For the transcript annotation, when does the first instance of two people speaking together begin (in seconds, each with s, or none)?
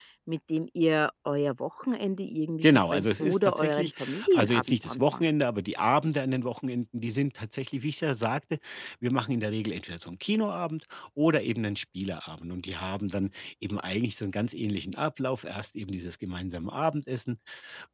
2.6 s